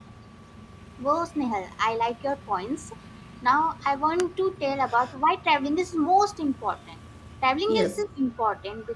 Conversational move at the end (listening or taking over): listening